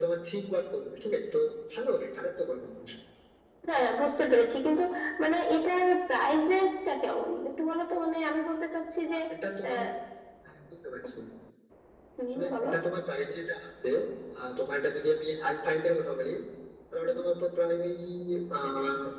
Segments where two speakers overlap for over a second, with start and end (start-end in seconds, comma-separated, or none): none